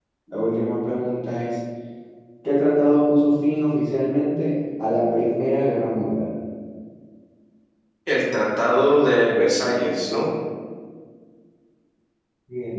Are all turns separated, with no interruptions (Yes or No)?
Yes